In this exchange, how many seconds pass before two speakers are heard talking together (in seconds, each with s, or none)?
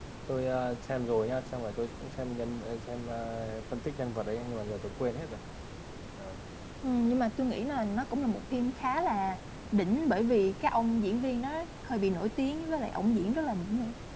none